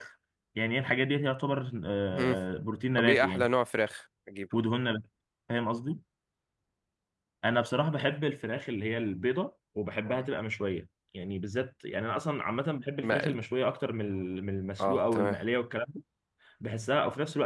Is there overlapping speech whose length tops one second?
No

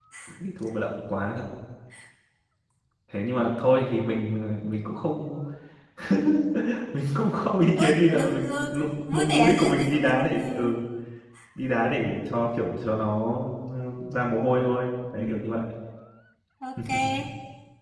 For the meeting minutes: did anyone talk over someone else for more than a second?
Yes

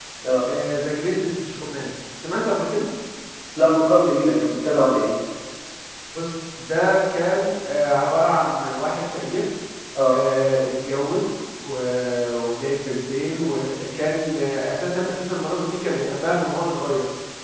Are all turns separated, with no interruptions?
Yes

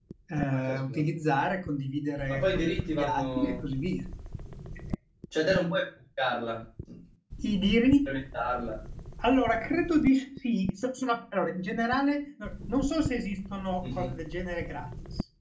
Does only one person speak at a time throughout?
No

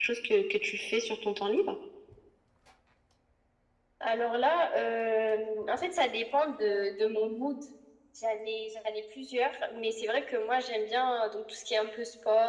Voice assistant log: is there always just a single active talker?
Yes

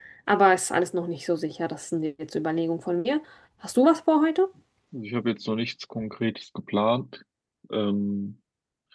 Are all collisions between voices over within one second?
Yes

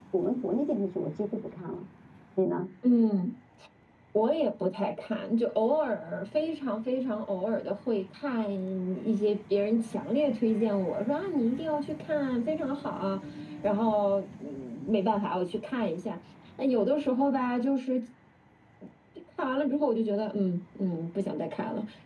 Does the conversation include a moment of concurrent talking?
No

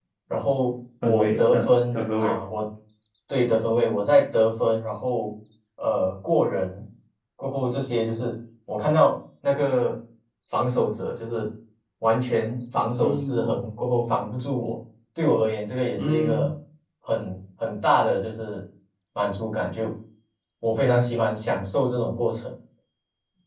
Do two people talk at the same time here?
Yes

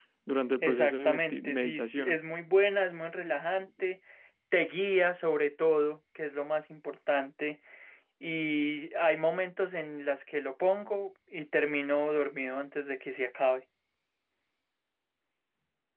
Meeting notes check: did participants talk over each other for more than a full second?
Yes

